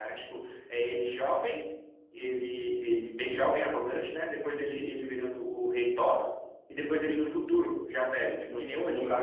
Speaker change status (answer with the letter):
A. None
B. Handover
B